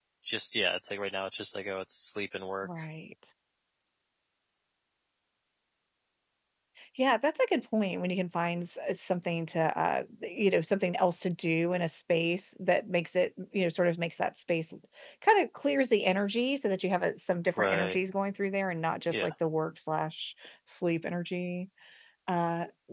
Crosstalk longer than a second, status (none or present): none